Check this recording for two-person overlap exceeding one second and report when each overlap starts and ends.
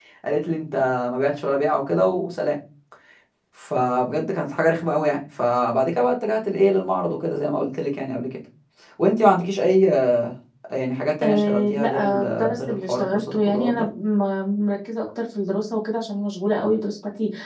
11.2-13.9

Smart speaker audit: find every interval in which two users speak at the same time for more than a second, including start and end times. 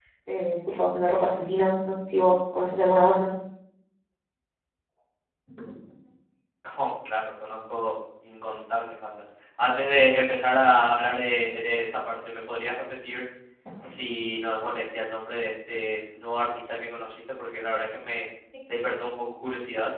none

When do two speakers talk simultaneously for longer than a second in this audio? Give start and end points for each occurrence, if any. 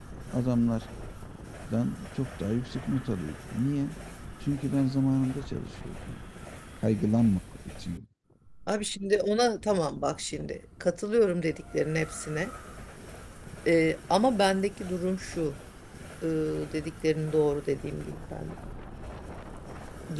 none

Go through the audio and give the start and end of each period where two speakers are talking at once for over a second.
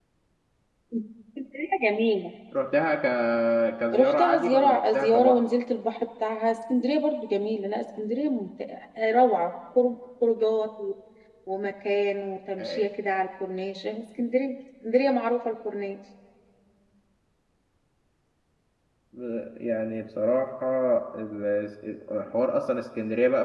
3.9-5.4

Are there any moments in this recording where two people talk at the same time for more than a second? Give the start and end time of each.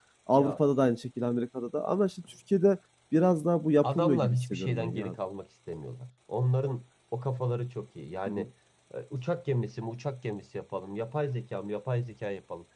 3.8-5.1

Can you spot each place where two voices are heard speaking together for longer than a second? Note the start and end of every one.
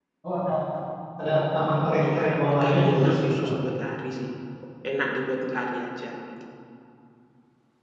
2.1-3.5

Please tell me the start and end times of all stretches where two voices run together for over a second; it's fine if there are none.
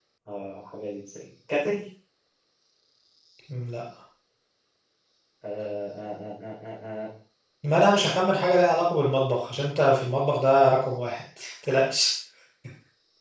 none

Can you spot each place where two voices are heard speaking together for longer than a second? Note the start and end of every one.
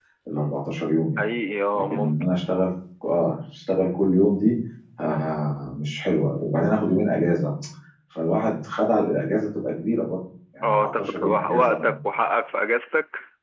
10.6-11.9

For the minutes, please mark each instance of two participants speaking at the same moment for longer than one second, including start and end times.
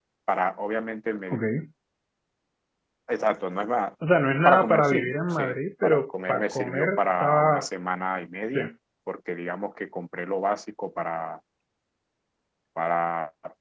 4.5-7.7

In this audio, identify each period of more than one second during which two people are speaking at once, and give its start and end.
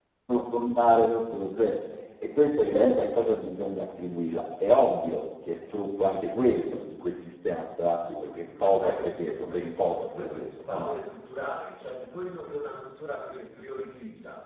8.6-10.9

